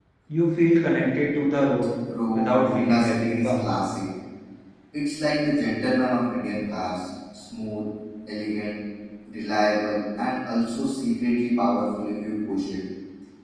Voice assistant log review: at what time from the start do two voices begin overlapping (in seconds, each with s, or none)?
2.4 s